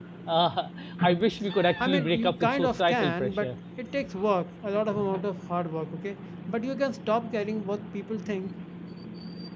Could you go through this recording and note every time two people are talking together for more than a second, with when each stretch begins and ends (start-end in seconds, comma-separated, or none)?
1.8-3.5